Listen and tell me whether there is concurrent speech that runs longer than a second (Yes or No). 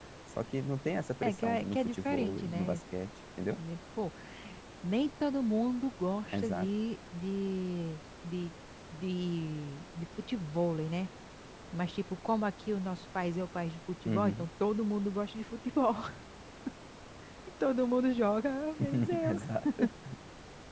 Yes